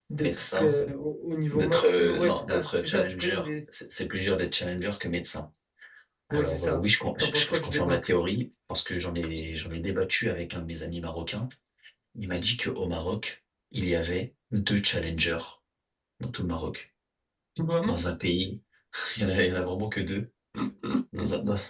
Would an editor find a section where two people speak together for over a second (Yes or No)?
Yes